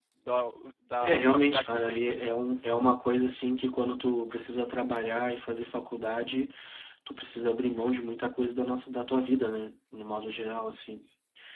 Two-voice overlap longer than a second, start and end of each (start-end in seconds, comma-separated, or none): 1.0-2.2